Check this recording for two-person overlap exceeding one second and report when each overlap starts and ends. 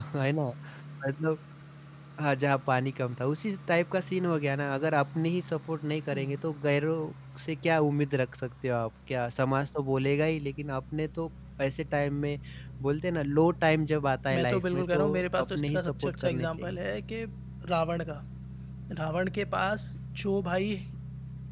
14.3-16.8

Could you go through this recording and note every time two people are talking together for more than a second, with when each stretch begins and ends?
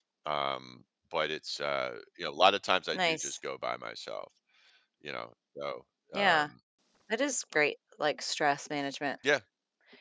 none

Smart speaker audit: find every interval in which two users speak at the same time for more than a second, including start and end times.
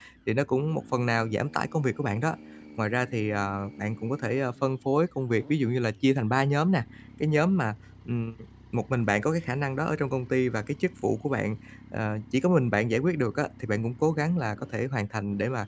none

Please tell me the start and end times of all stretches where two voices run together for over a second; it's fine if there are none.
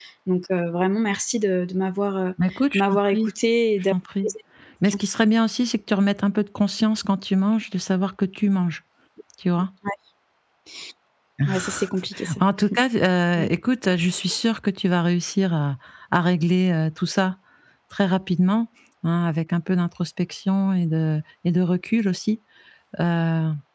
none

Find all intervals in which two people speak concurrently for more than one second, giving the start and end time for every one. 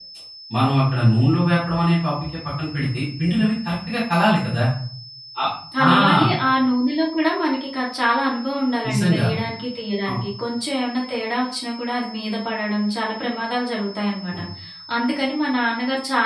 none

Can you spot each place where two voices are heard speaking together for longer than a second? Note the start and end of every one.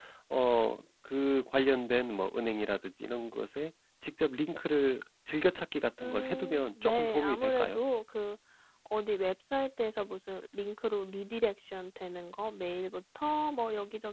6.0-7.8

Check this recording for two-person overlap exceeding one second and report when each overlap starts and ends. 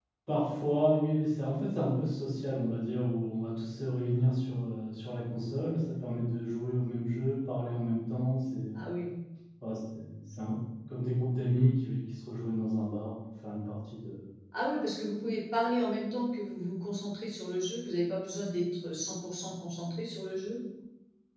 none

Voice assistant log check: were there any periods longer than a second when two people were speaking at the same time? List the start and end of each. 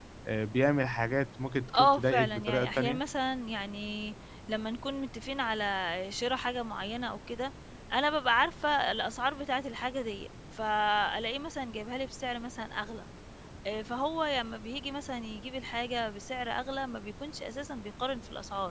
1.8-3.0

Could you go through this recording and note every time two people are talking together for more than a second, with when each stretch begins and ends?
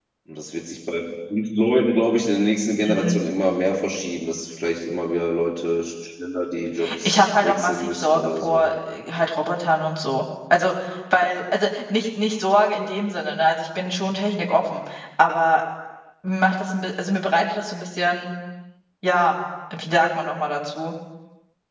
7.0-8.7

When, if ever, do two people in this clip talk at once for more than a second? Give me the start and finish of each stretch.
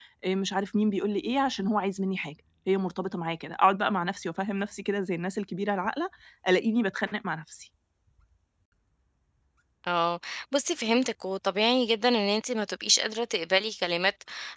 none

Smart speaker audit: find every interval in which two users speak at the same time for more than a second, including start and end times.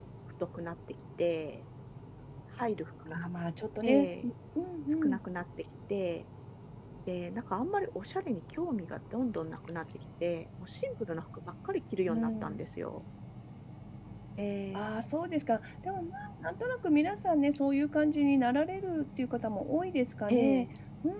none

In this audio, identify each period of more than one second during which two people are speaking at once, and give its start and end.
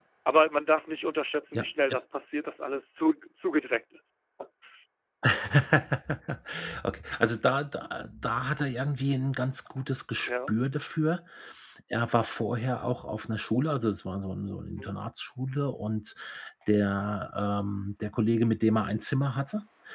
none

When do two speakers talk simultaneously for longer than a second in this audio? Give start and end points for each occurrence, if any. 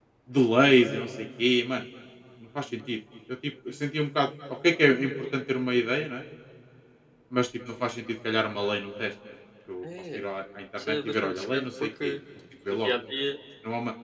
10.8-12.2

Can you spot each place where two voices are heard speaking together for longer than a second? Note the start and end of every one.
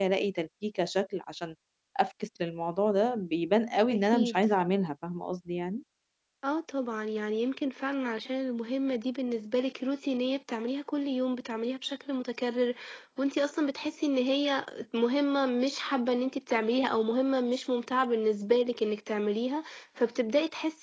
none

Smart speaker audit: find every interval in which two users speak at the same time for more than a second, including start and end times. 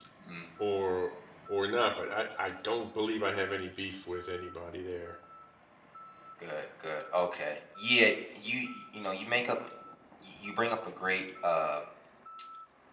none

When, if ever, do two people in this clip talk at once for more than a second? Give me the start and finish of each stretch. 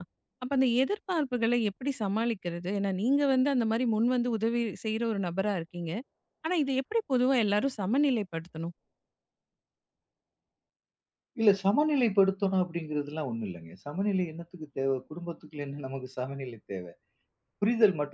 none

